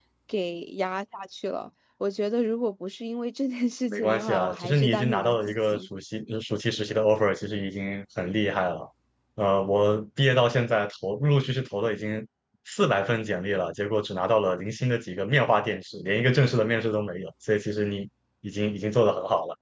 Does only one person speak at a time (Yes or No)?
No